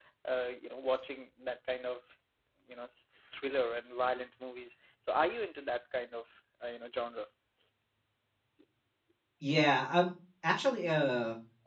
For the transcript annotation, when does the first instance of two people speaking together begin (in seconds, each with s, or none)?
none